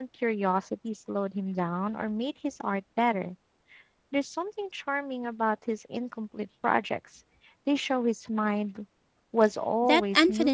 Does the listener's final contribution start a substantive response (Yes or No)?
Yes